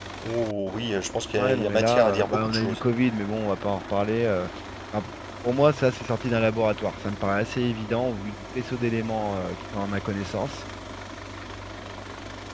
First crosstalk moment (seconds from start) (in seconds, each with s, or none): 1.4 s